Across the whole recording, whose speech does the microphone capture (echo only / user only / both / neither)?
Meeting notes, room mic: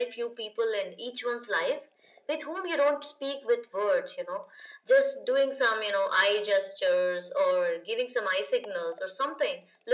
echo only